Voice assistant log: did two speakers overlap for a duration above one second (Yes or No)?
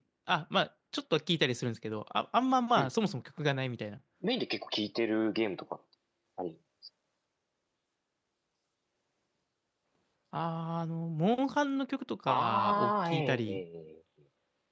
Yes